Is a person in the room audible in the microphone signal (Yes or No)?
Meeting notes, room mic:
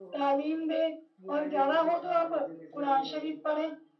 Yes